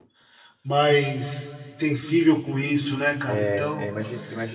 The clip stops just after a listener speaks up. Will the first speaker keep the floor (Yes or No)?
No